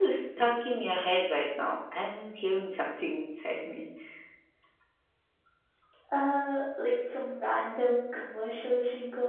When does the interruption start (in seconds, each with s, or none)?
none